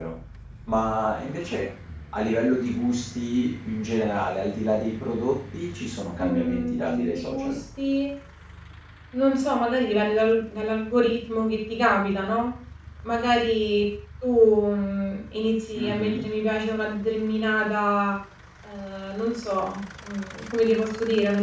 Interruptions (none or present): present